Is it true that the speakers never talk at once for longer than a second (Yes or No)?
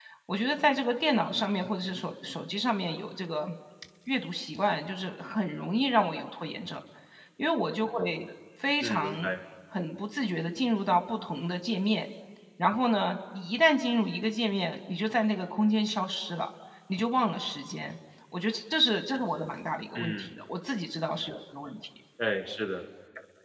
Yes